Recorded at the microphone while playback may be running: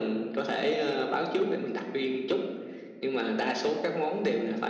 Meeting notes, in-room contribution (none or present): none